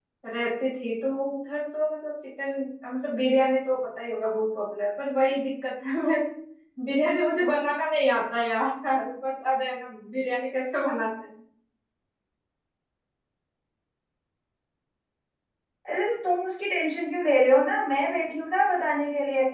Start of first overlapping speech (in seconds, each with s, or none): none